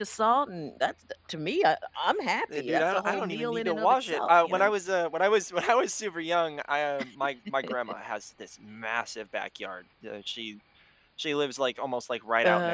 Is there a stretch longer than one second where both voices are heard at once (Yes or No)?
Yes